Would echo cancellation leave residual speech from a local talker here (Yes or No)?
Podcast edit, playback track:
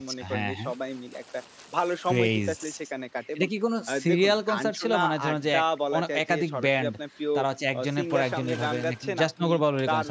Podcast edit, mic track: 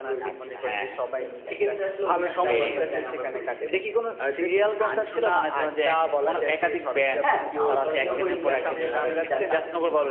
Yes